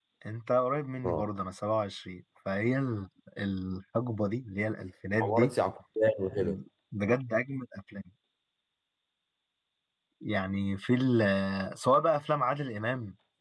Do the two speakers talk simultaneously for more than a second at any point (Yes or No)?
No